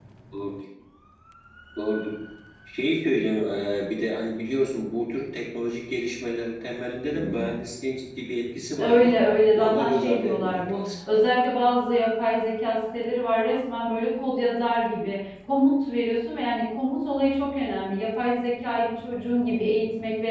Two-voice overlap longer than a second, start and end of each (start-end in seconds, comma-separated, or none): 9.5-10.8